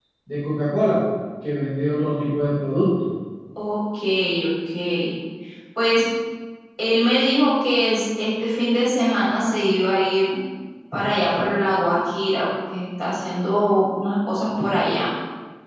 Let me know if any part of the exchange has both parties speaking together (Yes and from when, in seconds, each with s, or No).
No